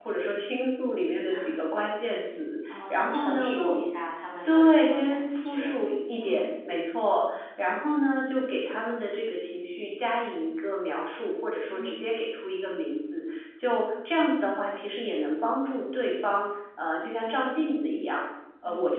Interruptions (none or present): present